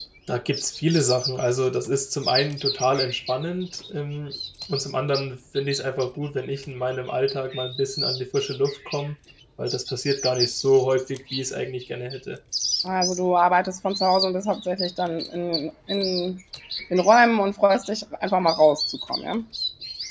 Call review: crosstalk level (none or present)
none